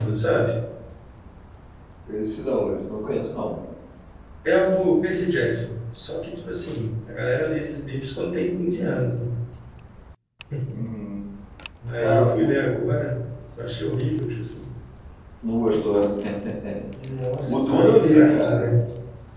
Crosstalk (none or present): present